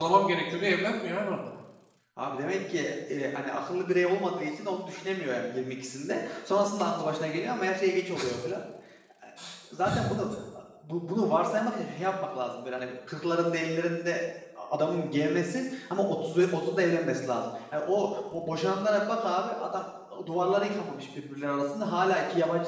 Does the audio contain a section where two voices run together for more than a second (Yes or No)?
No